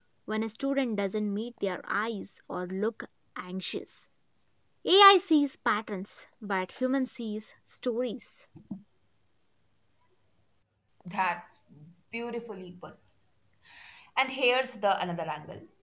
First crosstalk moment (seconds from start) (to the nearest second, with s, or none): none